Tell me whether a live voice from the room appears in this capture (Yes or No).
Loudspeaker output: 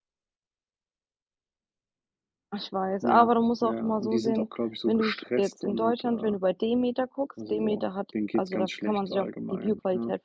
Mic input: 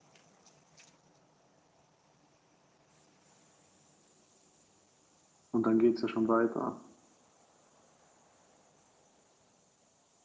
Yes